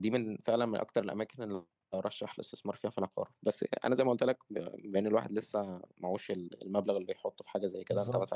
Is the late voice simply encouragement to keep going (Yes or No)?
Yes